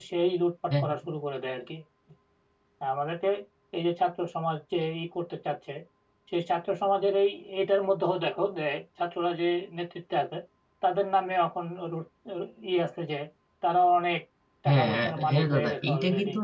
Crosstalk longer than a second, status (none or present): present